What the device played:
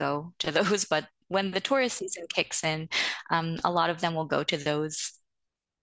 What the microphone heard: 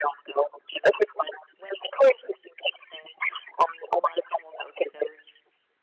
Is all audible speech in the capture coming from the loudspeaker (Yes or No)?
Yes